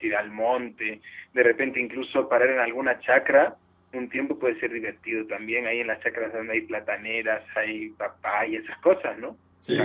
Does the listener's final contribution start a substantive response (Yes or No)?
Yes